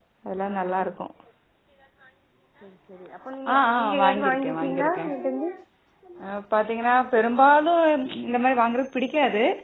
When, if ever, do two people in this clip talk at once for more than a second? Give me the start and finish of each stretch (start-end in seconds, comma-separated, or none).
3.5-5.1